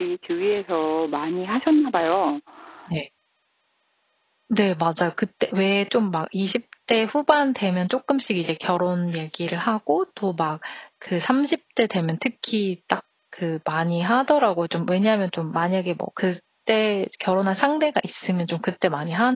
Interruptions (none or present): none